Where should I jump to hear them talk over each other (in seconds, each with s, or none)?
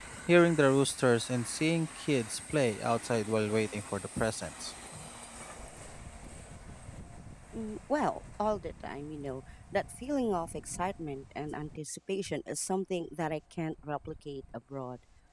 none